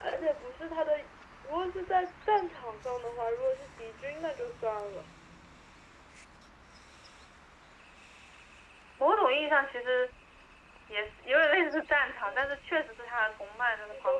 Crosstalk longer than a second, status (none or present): none